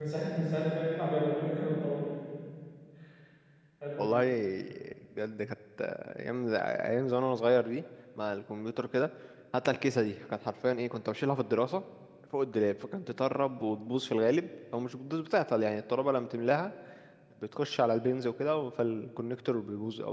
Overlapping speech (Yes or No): No